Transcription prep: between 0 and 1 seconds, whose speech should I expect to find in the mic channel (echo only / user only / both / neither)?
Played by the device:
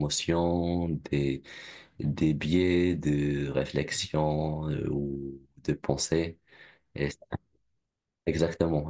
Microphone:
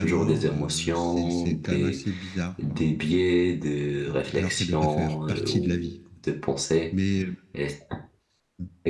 both